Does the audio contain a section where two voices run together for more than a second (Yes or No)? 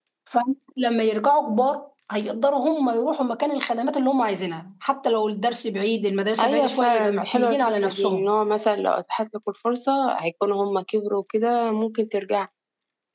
Yes